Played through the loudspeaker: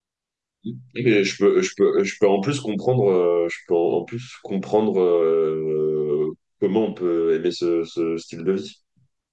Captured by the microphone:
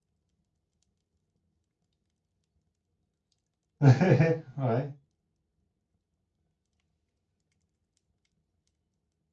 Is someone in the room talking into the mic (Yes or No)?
Yes